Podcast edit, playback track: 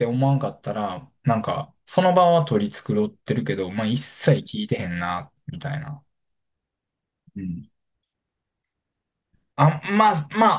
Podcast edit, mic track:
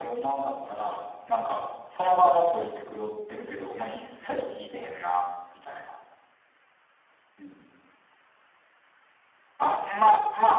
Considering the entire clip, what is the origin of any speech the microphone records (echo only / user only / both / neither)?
echo only